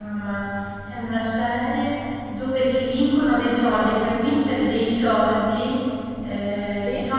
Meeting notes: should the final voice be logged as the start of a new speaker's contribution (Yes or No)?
No